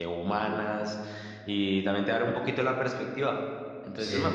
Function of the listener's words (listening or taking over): taking over